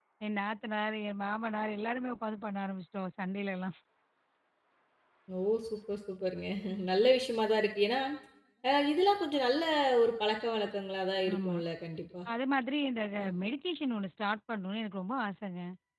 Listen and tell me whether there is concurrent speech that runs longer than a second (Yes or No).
No